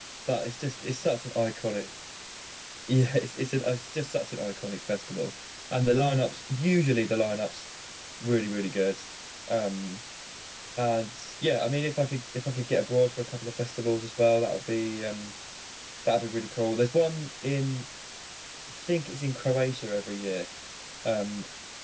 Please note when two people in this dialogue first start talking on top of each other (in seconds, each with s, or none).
none